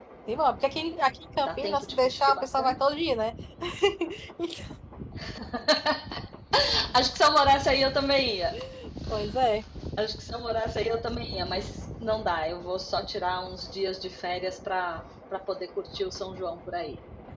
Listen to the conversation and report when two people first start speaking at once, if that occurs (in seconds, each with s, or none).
1.4 s